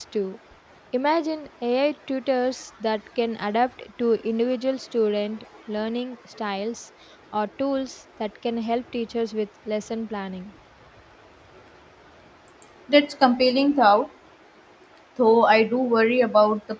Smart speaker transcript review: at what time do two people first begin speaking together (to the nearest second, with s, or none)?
none